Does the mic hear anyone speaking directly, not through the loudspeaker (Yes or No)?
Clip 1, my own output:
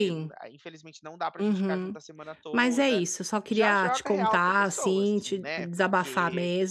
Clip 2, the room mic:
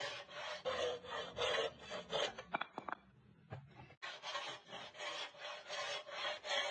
No